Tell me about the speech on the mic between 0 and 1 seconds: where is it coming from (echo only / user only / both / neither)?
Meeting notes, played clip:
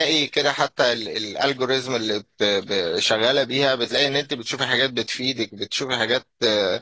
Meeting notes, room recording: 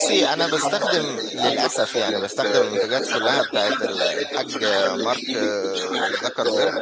both